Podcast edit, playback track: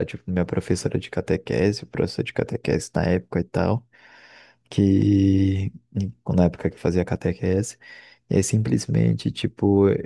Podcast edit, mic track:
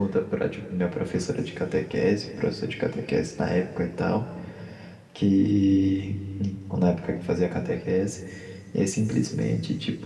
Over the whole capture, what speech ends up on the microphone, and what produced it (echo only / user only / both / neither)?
echo only